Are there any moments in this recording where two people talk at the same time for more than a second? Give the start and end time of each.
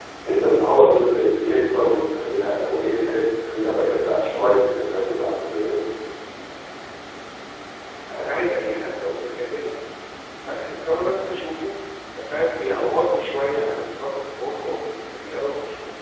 none

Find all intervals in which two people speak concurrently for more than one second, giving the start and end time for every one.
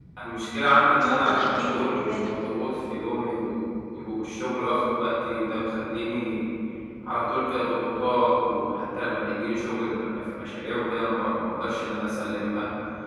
1.0-2.3

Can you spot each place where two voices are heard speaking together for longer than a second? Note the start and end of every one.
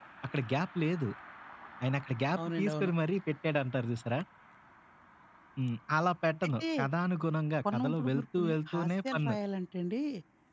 7.7-9.3

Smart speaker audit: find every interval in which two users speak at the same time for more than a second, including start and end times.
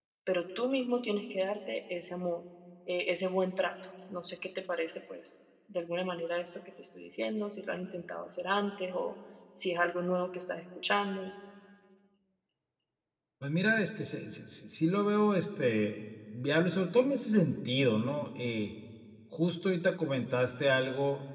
none

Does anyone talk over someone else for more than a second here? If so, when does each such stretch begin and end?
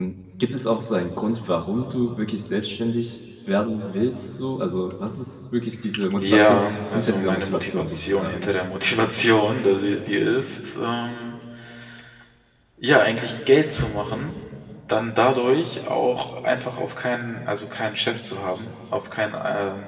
6.2-8.5

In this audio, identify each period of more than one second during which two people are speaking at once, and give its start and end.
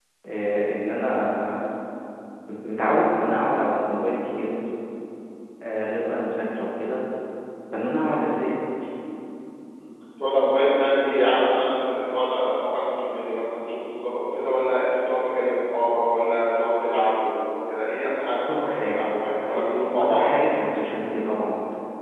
18.6-20.2

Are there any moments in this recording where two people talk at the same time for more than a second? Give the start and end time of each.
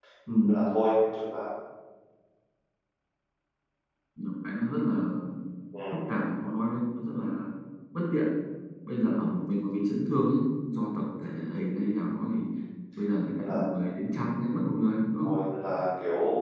none

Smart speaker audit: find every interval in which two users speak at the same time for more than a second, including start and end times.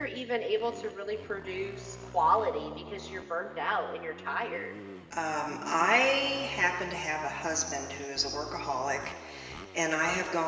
none

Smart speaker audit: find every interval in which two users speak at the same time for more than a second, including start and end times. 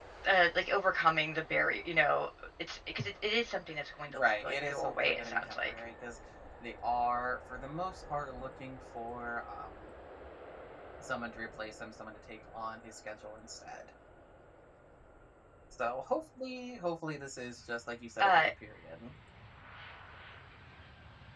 4.1-5.8

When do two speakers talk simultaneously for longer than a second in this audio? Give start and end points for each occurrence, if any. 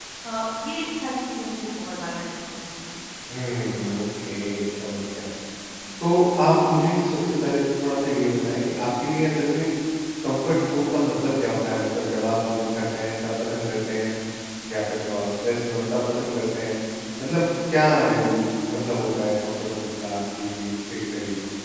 none

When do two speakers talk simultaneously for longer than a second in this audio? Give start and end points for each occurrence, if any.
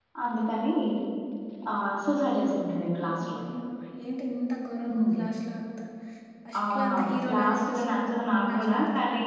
6.6-7.9

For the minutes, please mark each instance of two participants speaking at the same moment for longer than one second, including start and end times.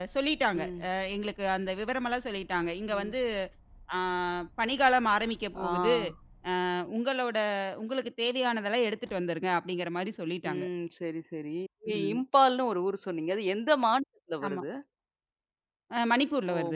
none

